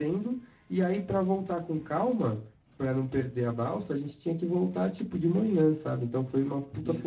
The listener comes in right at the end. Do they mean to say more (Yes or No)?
No